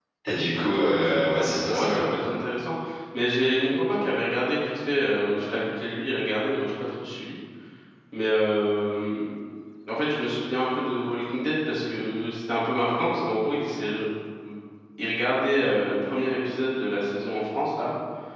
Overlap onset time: 0.8 s

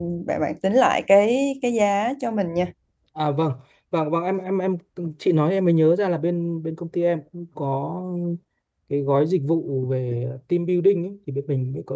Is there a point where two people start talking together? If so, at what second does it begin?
none

